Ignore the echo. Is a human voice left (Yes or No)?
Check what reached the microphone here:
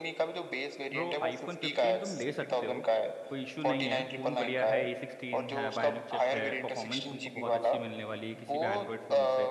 Yes